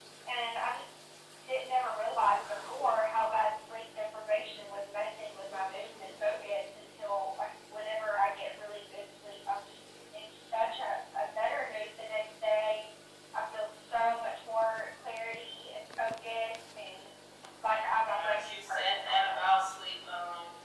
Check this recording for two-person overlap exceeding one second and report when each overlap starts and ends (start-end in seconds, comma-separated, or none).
17.6-19.7